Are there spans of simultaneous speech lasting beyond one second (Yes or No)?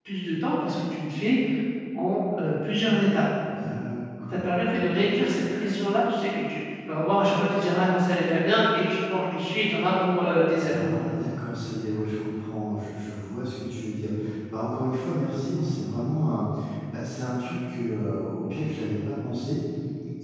No